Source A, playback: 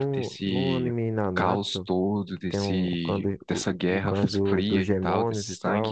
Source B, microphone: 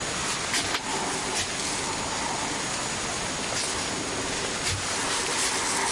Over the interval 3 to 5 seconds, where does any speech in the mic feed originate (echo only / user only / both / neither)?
neither